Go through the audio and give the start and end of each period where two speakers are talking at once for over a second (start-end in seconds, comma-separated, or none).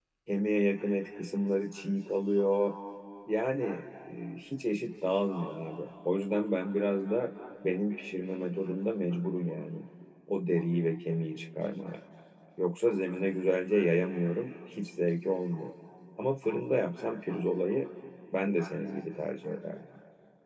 none